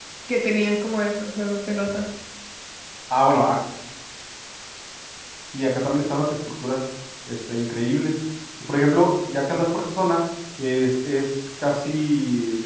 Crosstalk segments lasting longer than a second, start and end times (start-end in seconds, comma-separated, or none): none